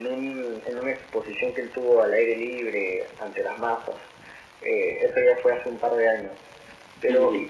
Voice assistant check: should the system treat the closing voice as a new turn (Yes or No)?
No